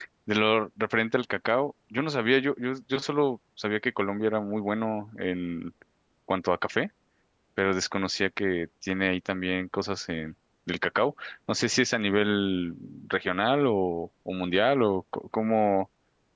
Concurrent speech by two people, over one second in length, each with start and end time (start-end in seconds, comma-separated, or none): none